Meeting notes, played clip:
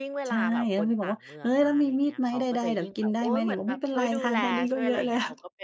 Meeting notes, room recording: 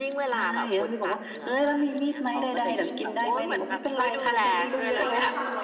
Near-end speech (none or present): present